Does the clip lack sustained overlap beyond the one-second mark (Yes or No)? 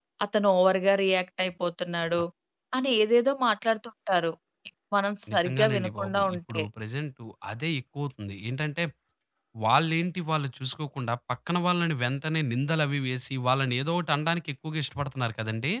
No